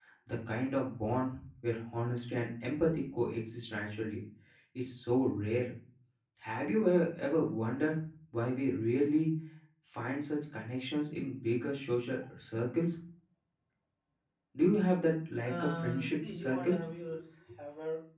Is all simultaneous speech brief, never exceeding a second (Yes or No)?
No